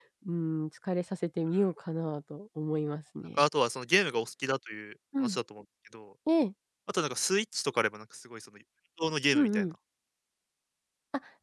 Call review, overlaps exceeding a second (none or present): none